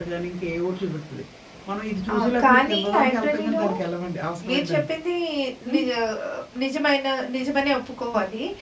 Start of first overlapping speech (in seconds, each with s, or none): 2.1 s